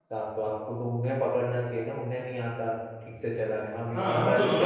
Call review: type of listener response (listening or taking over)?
taking over